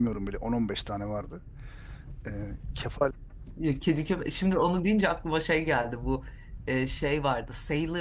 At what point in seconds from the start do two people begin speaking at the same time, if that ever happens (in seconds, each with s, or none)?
none